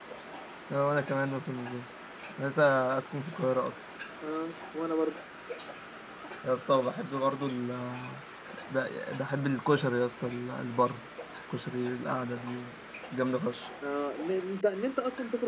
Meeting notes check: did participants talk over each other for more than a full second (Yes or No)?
No